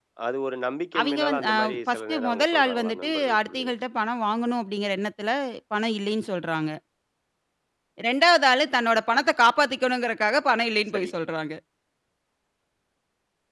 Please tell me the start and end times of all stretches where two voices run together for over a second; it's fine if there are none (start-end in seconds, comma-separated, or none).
1.0-3.7